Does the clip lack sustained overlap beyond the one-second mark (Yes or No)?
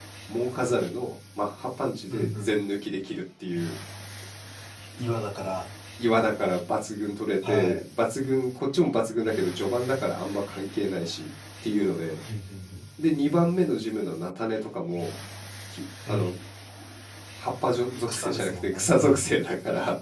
No